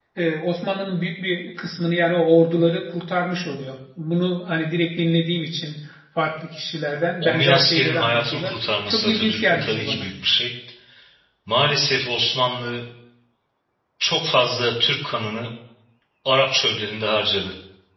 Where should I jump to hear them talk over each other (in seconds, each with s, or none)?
7.2 s